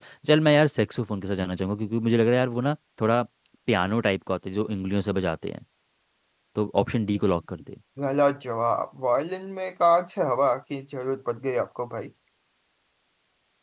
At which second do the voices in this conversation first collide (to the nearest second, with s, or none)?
none